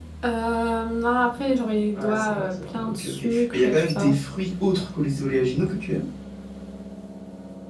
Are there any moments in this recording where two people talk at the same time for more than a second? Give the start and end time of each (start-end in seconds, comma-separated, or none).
1.9-4.2